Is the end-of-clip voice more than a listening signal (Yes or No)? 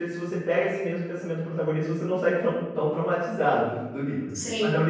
Yes